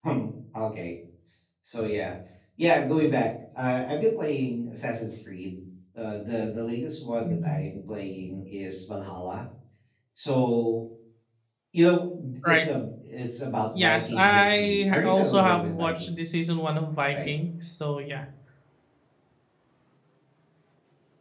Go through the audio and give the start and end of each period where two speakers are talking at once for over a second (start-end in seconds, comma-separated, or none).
13.7-16.3